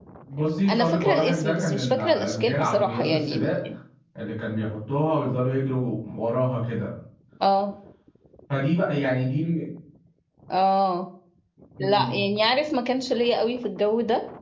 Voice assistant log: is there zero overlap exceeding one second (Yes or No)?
No